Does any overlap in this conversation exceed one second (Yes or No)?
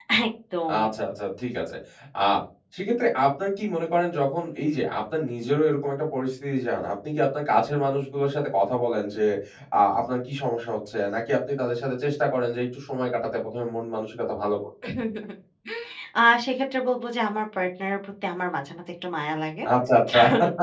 No